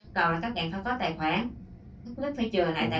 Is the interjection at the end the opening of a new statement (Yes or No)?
No